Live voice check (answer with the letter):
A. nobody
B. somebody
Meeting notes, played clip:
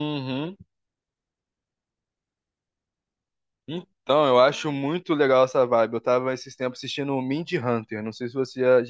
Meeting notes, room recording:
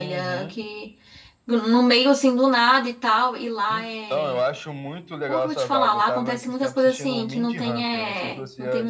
B